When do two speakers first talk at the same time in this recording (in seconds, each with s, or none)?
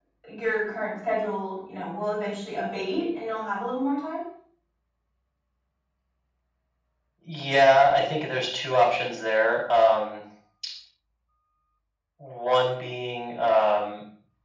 none